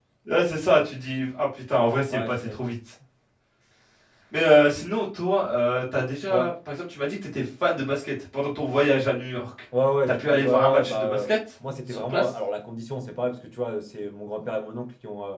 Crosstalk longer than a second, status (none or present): present